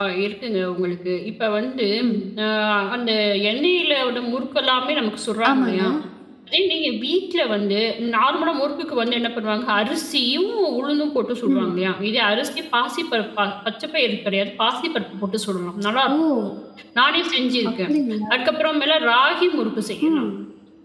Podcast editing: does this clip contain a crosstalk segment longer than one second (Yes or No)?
No